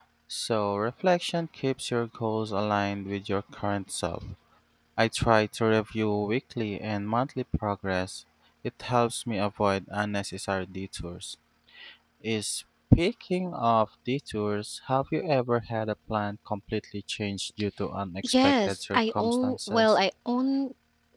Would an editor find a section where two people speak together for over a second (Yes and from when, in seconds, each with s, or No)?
Yes, from 18.2 s